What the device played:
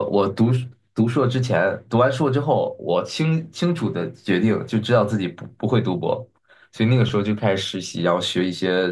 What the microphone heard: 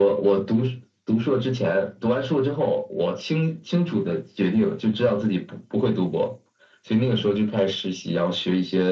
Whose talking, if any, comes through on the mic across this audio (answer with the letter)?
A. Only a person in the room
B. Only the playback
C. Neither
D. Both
B